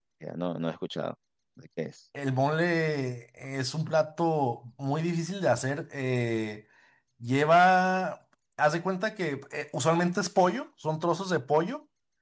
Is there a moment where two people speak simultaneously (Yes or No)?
No